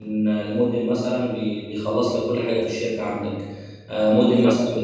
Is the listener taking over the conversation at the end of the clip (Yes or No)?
No